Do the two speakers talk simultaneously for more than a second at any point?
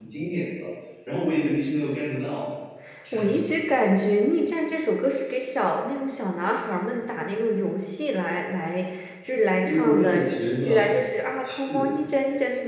Yes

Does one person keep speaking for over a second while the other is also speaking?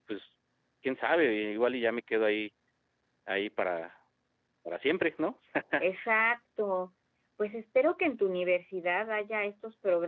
No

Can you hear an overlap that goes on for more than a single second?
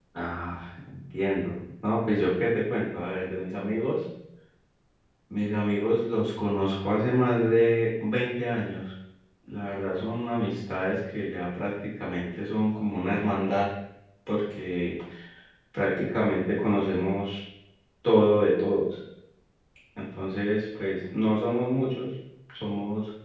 No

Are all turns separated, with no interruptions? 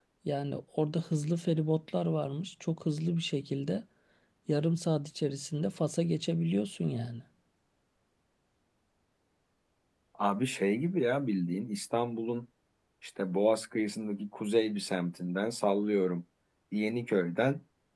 Yes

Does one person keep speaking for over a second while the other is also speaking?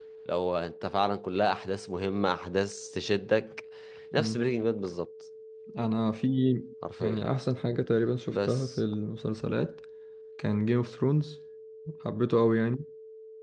No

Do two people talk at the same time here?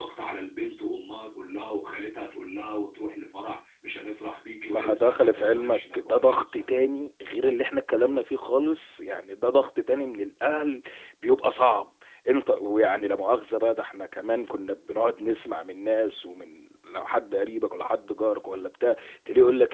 Yes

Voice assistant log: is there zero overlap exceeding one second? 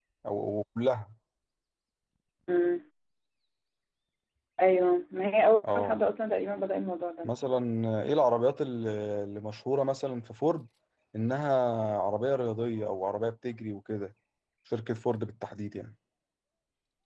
Yes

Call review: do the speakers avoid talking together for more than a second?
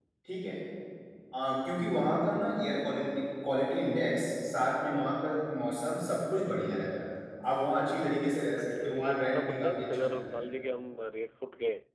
No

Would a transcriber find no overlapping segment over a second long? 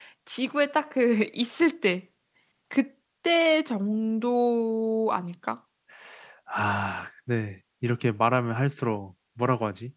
Yes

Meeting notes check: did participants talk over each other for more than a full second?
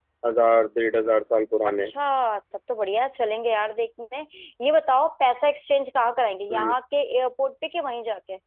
No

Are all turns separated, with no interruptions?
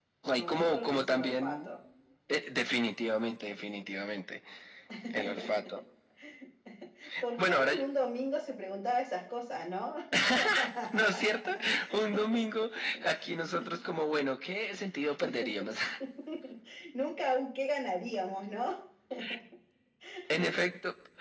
No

